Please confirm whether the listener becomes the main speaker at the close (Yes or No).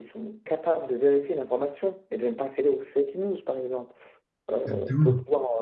No